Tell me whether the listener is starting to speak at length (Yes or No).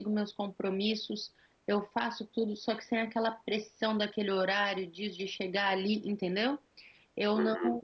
No